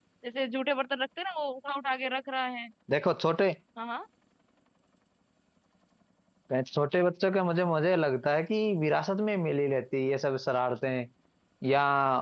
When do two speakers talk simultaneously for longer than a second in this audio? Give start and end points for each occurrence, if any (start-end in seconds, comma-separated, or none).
none